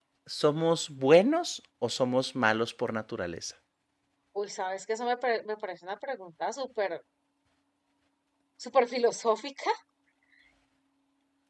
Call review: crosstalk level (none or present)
none